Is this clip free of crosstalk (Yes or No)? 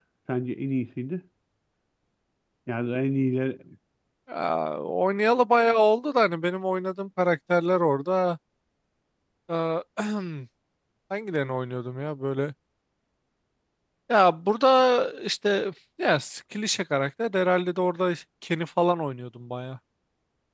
Yes